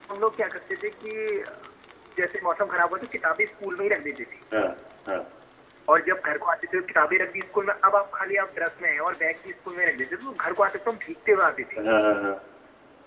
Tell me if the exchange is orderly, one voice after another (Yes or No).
Yes